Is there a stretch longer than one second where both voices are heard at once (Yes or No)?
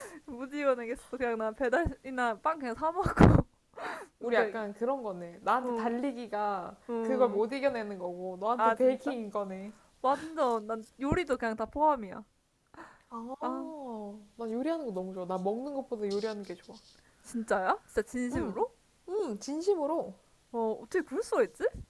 No